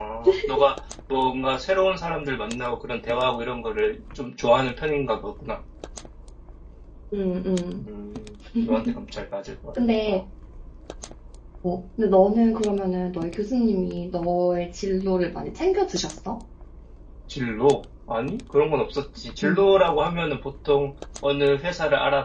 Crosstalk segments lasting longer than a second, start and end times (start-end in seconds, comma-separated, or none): none